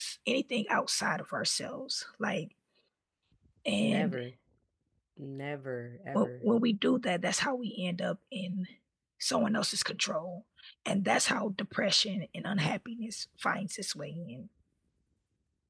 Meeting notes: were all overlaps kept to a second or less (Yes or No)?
Yes